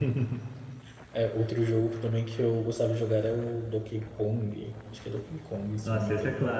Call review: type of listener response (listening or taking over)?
taking over